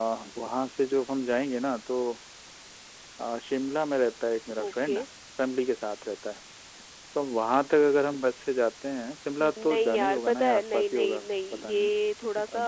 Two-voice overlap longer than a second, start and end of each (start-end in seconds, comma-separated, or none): 9.4-11.9